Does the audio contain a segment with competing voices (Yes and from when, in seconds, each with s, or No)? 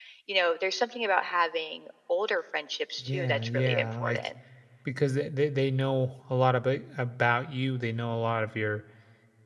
Yes, from 3.0 s